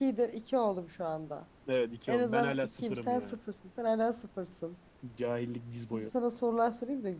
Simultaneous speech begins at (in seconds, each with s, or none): 2.1 s